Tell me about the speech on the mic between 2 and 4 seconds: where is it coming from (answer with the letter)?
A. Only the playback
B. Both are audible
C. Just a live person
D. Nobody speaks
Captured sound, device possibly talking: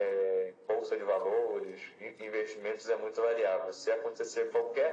A